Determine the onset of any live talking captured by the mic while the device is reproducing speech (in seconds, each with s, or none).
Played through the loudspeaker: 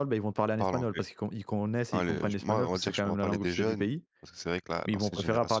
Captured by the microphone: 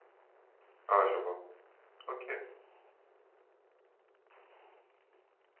0.9 s